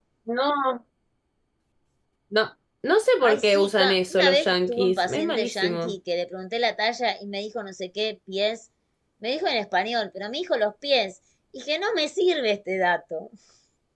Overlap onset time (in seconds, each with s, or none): 3.2 s